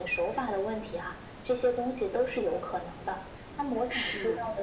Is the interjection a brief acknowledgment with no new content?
Yes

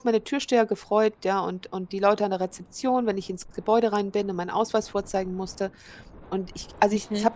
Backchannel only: Yes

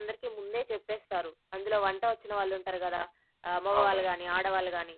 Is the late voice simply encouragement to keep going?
Yes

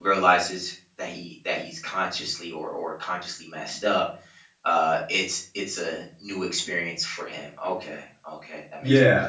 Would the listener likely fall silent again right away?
No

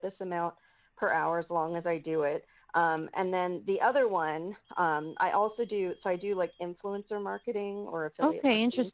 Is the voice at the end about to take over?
Yes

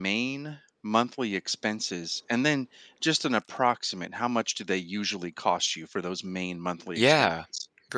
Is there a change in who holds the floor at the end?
Yes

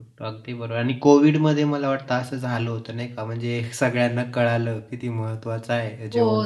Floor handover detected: Yes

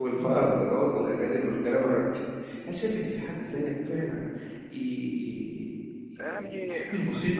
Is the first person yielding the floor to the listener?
No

